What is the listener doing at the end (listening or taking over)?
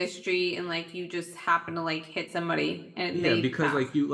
taking over